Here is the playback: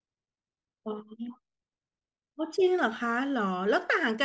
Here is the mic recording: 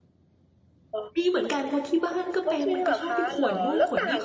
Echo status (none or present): present